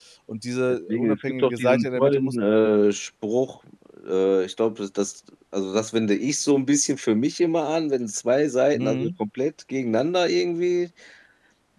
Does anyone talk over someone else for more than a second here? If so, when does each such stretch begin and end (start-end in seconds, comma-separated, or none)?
0.9-2.4